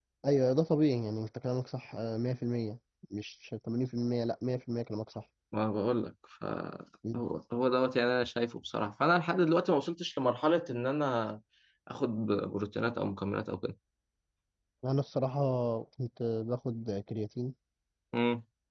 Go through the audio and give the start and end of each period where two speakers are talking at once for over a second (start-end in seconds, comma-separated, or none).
none